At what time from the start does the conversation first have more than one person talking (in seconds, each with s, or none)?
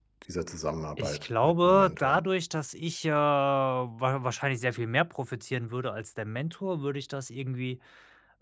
1.0 s